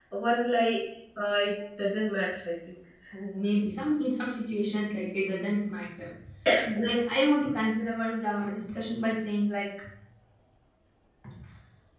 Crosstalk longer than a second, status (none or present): none